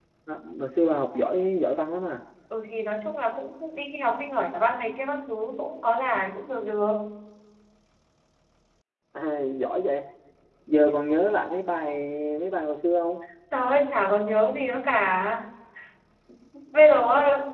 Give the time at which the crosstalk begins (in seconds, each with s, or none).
none